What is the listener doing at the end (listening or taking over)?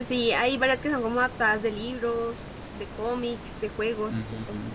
taking over